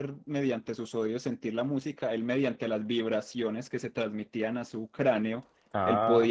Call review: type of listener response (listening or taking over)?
listening